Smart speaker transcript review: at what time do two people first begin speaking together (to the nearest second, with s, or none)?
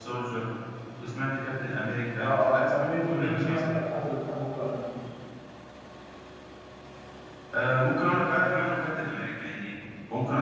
2 s